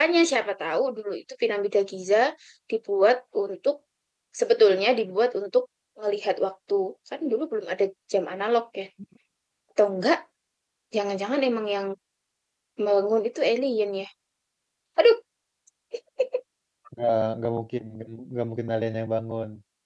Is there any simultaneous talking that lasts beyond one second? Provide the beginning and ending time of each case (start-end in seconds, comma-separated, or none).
none